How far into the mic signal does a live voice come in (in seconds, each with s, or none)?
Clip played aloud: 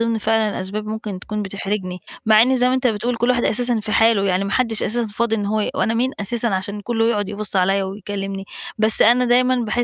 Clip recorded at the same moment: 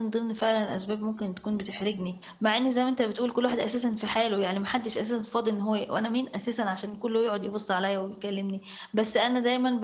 none